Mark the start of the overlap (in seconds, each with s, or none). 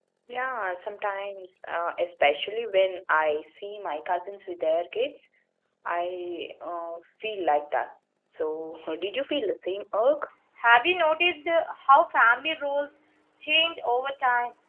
none